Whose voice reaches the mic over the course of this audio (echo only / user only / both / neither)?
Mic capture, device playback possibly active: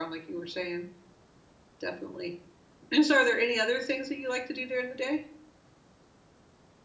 user only